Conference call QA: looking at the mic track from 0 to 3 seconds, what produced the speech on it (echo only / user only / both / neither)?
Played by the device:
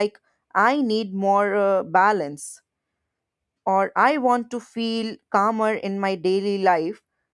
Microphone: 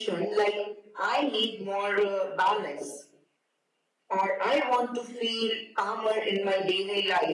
echo only